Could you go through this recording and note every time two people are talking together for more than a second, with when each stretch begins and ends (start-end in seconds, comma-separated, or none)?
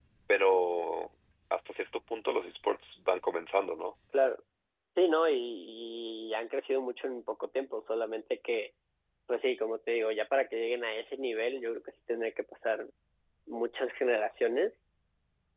none